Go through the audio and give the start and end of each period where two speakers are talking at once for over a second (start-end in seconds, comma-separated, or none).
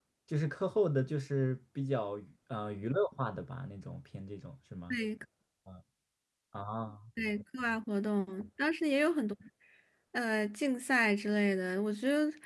none